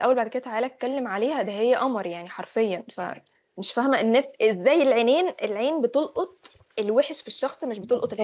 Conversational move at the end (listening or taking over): listening